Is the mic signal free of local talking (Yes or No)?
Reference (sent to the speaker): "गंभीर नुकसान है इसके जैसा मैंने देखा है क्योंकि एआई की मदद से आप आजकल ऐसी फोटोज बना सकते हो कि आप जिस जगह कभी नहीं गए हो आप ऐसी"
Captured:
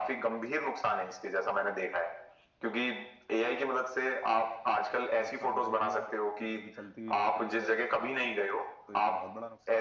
No